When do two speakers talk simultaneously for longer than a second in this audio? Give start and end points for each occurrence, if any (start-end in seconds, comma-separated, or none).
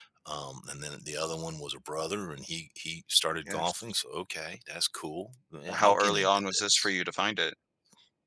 5.7-6.9